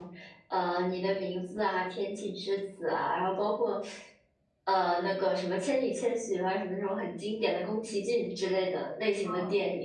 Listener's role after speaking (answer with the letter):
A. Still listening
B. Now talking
B